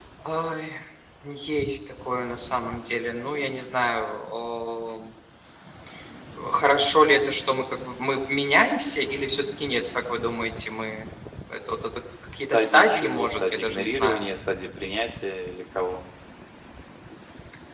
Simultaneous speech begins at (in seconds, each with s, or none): 12.4 s